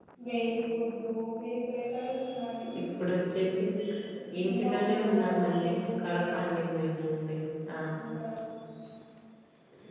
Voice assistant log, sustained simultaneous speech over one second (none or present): present